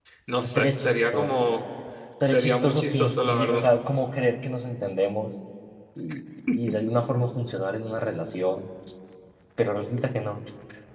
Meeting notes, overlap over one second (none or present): present